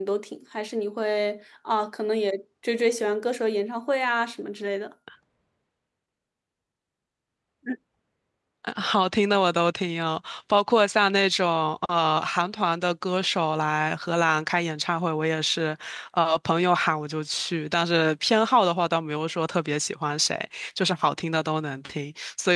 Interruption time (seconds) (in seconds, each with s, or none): none